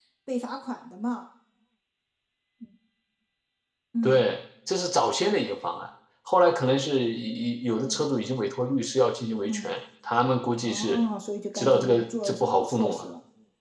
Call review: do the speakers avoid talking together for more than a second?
No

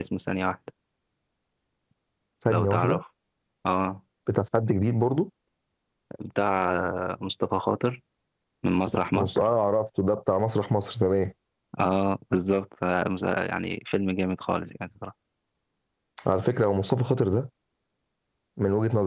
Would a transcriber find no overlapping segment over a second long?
Yes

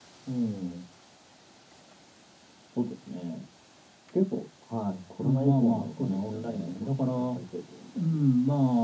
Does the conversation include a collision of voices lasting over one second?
Yes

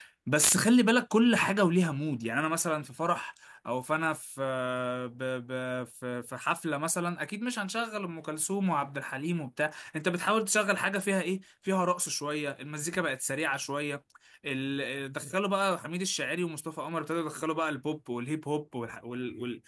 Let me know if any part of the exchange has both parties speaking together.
No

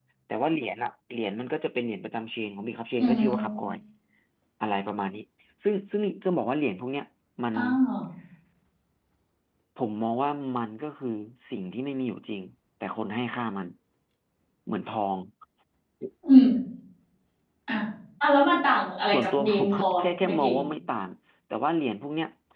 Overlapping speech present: Yes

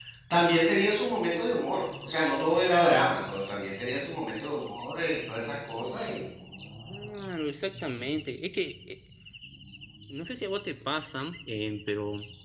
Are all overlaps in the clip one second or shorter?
Yes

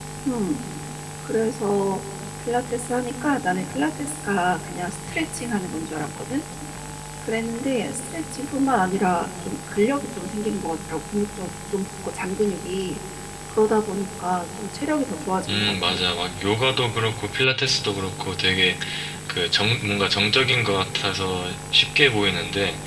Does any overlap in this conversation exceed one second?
No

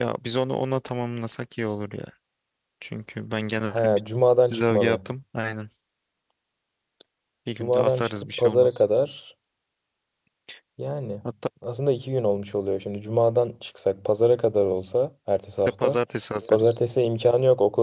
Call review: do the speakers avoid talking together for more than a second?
No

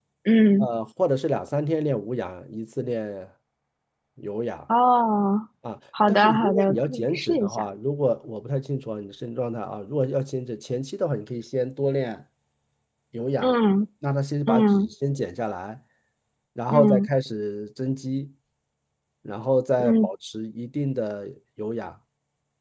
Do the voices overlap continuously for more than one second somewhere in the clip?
Yes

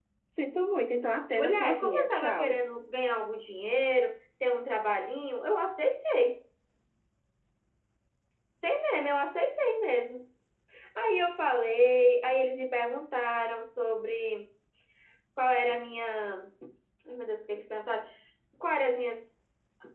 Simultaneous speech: Yes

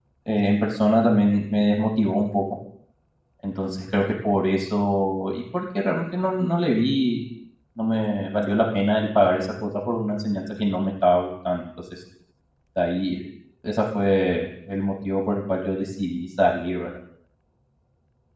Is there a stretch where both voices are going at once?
No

